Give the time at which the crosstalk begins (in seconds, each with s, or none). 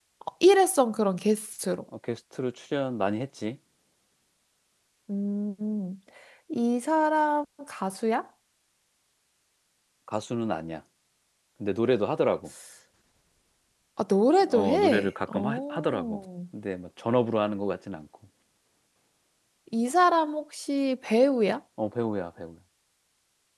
14.5 s